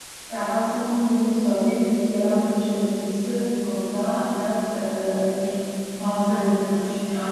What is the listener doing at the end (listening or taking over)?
listening